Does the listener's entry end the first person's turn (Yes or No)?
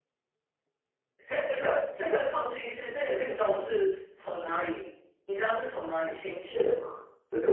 Yes